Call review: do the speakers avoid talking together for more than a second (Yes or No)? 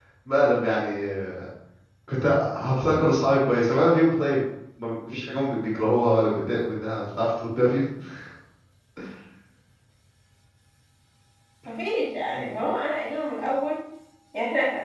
Yes